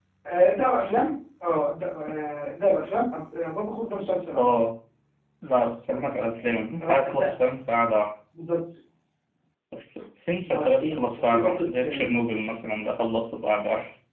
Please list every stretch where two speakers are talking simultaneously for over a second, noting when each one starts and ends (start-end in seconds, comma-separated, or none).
10.5-12.1